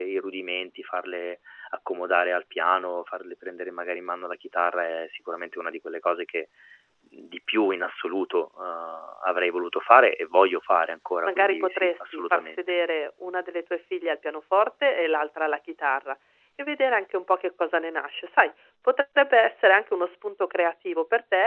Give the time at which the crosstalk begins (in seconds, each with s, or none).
11.3 s